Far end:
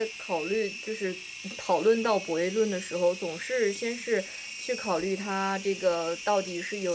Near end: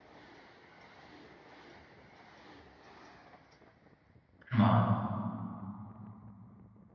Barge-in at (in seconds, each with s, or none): 4.5 s